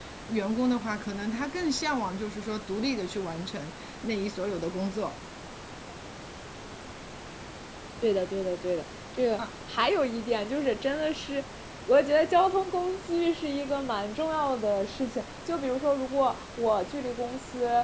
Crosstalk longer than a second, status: none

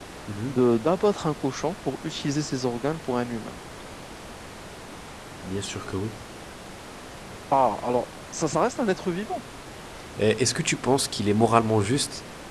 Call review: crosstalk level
none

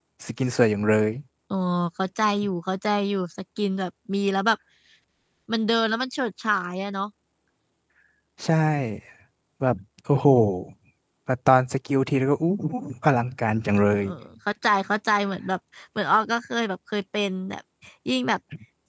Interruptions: none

